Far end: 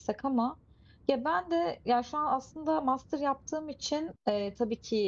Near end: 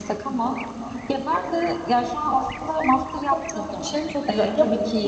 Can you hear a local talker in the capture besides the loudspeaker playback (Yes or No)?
Yes